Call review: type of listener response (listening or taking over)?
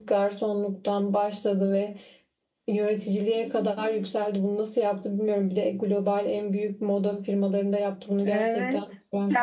taking over